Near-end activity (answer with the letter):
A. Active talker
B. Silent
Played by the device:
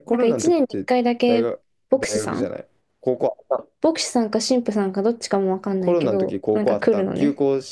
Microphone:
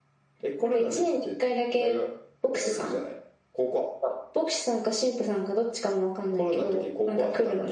B